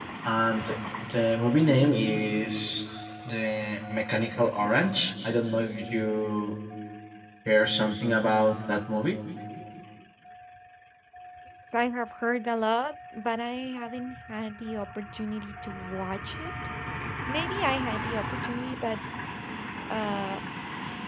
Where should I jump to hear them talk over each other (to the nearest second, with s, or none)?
none